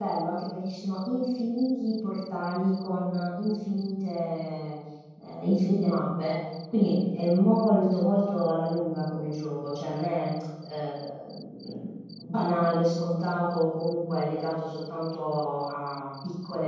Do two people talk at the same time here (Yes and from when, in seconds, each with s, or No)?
No